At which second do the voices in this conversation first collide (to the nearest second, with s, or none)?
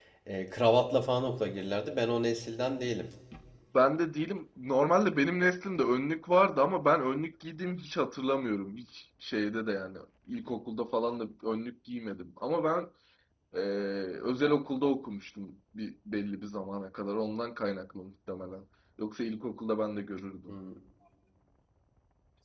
none